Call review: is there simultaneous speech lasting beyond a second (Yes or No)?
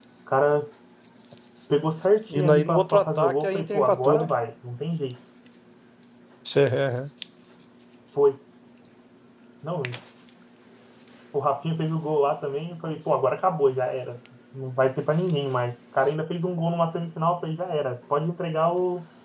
Yes